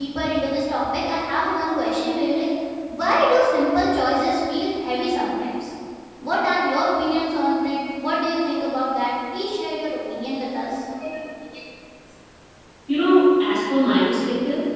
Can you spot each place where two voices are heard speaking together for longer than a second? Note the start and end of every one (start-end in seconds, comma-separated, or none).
none